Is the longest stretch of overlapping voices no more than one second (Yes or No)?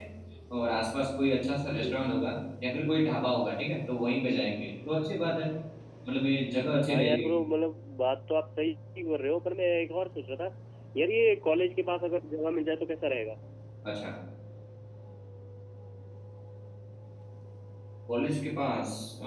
Yes